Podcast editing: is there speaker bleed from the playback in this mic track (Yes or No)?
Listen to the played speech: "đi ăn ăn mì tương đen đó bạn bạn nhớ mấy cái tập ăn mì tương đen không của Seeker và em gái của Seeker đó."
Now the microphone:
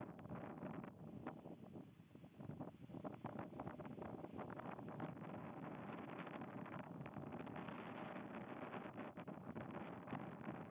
No